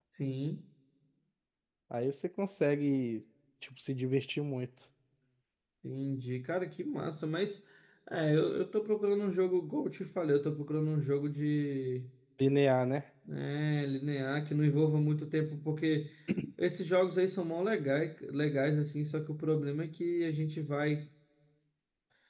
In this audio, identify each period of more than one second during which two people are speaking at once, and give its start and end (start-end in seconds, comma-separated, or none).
none